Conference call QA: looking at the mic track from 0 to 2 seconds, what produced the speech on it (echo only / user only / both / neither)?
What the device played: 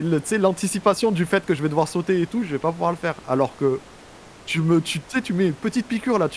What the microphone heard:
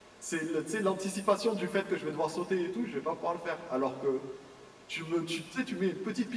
echo only